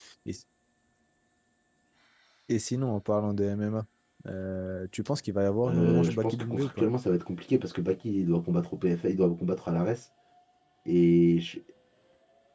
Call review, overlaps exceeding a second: present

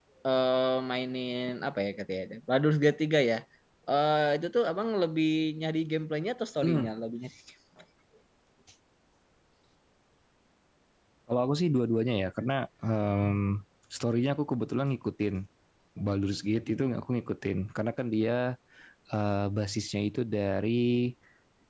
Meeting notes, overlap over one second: none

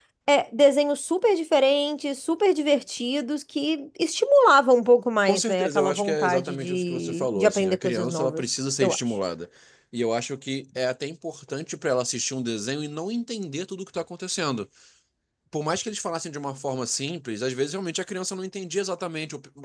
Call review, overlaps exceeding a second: present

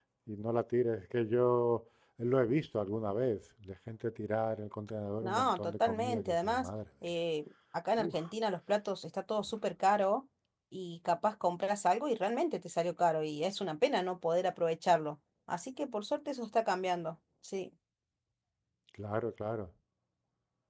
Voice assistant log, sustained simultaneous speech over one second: present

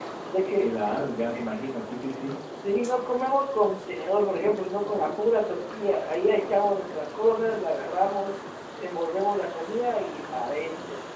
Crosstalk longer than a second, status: none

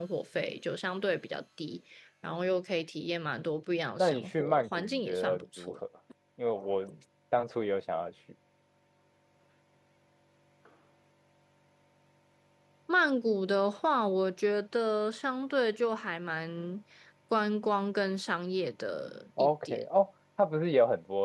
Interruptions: present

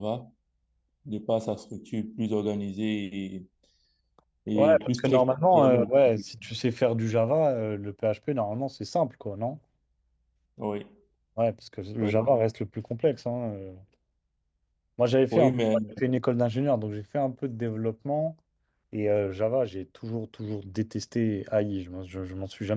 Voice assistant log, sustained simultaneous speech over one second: present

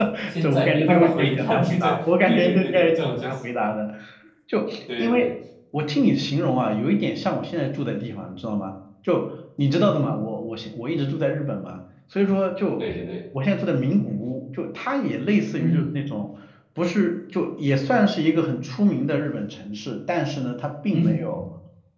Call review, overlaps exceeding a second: present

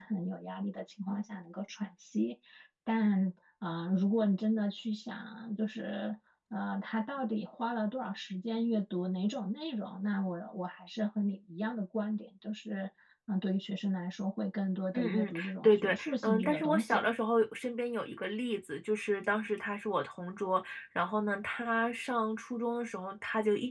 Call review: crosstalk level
present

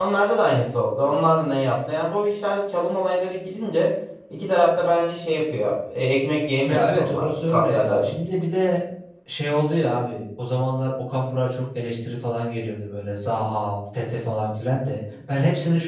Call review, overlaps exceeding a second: present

